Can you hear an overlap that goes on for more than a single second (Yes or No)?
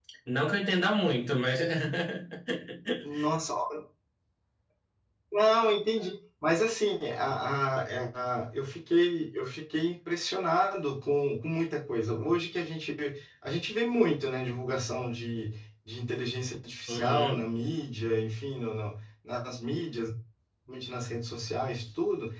No